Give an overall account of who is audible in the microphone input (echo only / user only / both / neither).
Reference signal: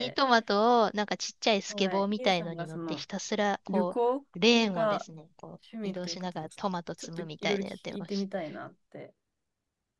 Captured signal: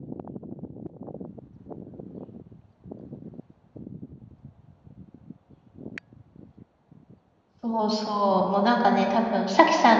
user only